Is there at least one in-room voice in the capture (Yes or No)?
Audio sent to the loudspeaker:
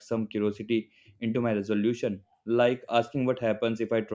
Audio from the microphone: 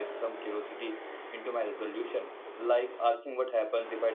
No